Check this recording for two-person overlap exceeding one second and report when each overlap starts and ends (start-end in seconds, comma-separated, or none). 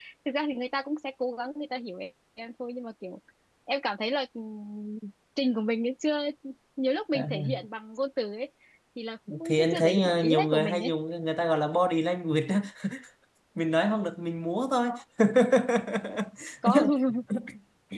9.4-10.9